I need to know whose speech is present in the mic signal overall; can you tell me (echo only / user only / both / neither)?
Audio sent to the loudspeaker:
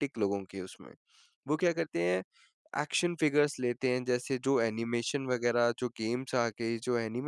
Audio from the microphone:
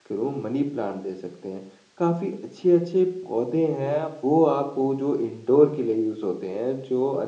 user only